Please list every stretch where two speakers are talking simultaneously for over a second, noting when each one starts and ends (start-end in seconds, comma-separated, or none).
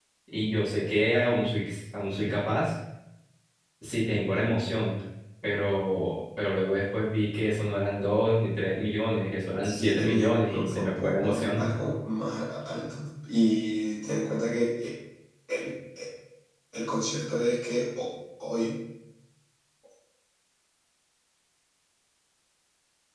9.6-11.6